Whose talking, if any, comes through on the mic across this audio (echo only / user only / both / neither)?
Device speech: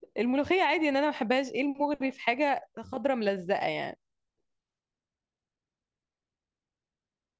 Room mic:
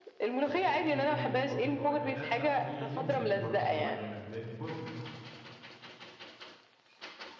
both